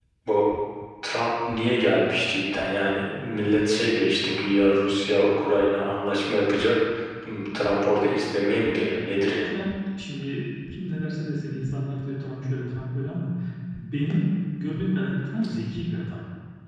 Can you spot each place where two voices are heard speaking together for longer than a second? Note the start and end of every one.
none

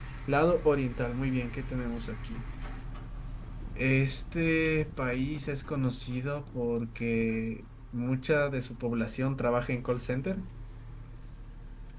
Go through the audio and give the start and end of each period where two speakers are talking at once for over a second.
none

